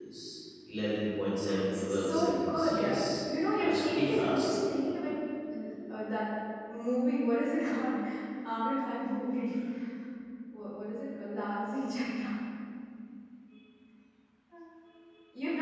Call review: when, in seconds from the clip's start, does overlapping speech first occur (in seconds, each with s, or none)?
1.4 s